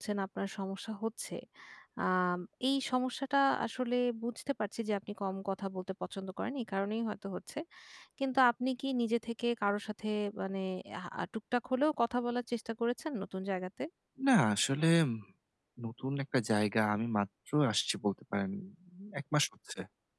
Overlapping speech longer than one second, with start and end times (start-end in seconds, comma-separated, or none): none